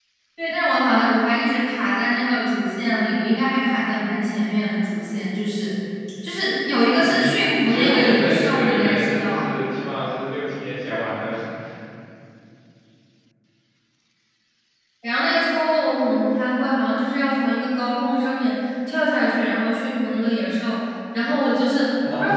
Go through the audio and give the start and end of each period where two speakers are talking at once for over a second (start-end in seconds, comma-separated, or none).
7.0-9.4